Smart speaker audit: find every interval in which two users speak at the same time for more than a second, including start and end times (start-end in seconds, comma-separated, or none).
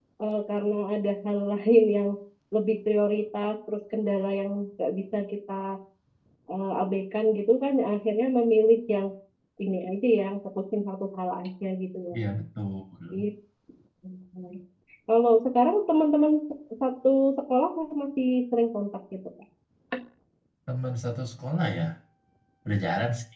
none